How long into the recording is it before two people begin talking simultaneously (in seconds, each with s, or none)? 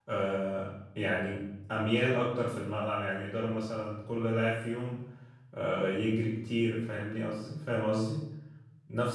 none